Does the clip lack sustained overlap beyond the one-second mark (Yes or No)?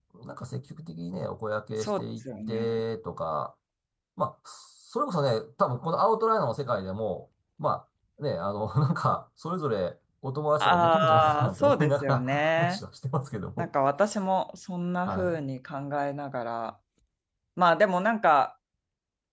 No